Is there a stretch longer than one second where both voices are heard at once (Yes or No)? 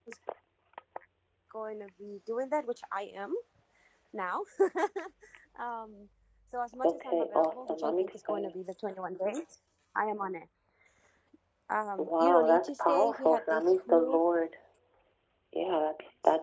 Yes